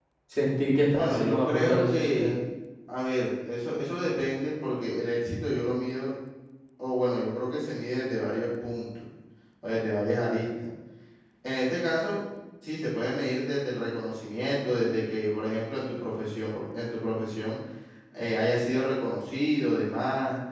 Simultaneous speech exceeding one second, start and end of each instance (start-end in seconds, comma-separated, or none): 0.9-2.3